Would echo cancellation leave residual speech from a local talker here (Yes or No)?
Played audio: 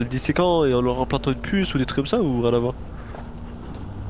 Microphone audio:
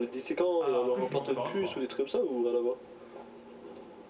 Yes